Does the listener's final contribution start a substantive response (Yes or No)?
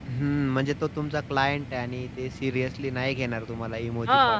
Yes